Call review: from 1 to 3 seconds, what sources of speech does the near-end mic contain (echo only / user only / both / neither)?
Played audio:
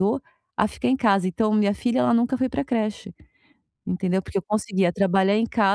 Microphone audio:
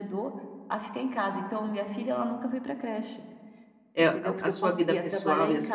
echo only